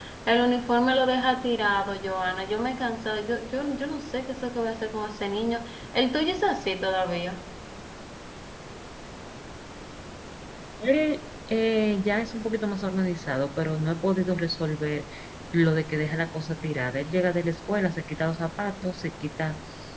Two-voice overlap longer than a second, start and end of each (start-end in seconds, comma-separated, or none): none